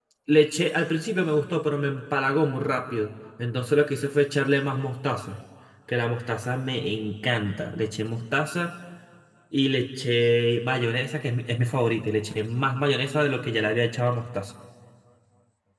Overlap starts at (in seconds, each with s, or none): none